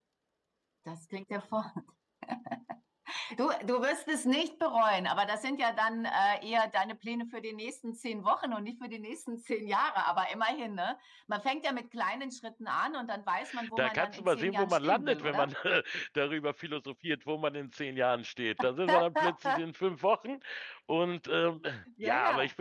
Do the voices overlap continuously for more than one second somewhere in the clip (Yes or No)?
Yes